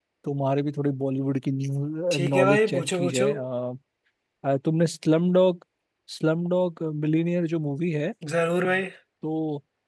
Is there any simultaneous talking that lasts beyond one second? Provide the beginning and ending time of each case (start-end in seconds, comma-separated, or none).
2.1-3.3